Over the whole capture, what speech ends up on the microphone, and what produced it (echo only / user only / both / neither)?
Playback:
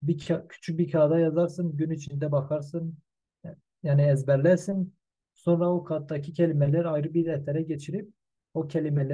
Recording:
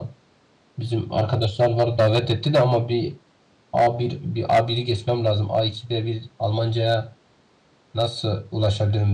user only